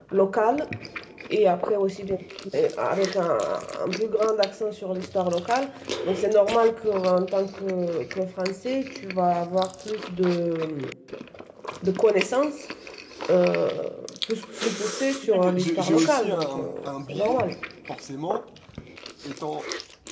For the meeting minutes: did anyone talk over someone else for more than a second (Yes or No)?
Yes